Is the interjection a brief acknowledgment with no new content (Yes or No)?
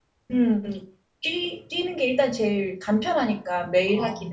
No